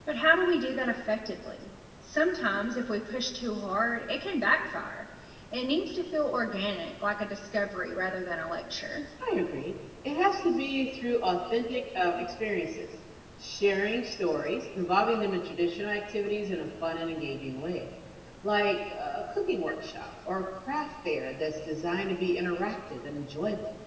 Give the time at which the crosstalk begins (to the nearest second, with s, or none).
none